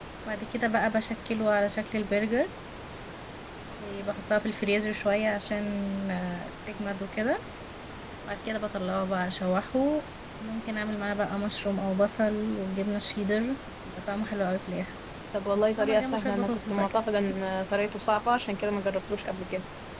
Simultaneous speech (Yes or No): Yes